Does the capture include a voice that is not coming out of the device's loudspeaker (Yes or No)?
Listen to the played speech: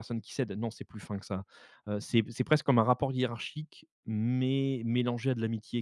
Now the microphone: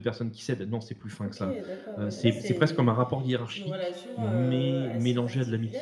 Yes